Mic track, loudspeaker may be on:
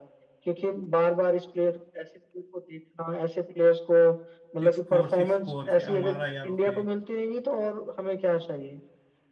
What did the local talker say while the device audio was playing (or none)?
सिक्स फोर सिक्स फोर क्या मारा यार उसने